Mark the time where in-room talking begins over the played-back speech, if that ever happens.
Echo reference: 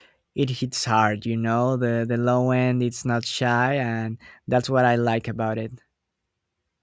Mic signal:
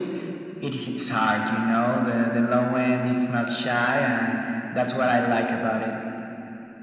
none

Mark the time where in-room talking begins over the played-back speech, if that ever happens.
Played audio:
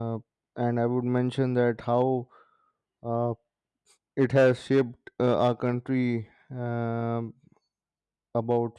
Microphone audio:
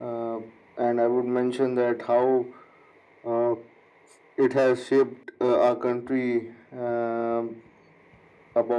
none

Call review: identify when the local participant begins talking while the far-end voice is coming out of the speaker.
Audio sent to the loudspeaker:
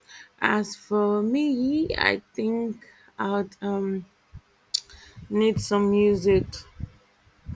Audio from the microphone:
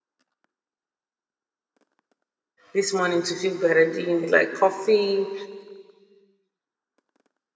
2.7 s

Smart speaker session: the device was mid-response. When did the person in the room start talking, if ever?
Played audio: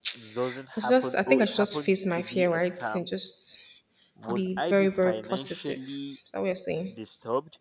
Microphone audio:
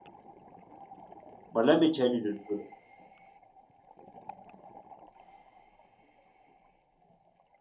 1.5 s

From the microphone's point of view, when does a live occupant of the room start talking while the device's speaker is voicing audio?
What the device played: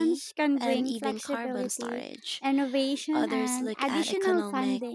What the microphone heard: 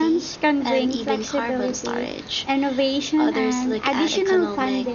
none

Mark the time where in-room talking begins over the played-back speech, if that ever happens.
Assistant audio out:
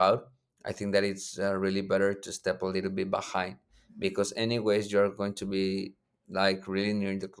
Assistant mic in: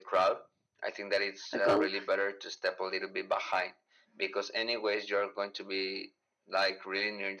1.5 s

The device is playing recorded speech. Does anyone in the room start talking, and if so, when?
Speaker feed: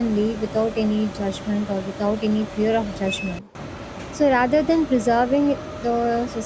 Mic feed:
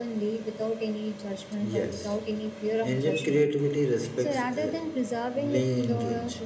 1.6 s

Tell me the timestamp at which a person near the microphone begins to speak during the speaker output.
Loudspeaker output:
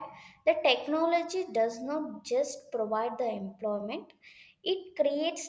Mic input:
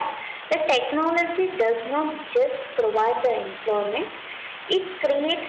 none

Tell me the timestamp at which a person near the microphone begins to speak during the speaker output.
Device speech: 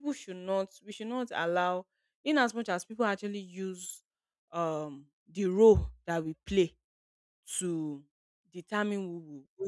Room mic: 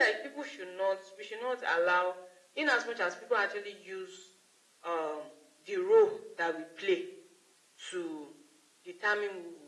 none

